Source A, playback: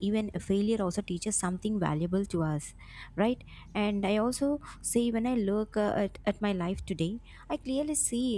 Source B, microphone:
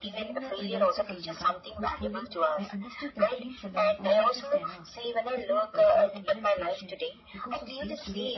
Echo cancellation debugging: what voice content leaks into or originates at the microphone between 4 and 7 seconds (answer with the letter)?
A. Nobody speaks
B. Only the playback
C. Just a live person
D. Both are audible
D